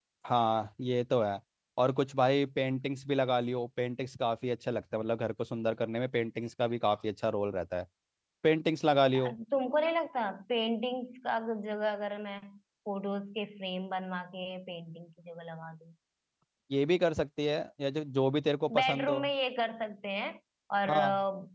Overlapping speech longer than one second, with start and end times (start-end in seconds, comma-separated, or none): none